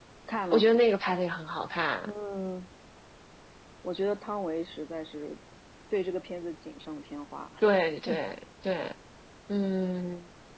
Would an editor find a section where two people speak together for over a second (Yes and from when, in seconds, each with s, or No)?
No